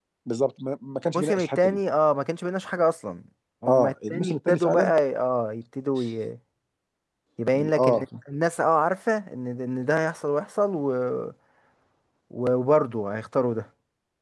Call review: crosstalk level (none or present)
present